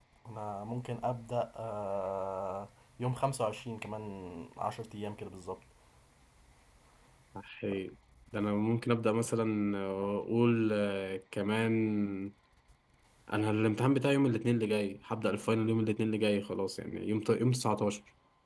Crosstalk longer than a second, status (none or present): none